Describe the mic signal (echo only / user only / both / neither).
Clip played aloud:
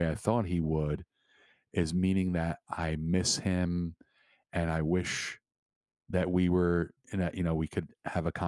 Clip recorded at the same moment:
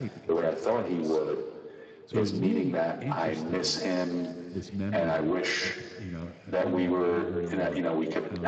both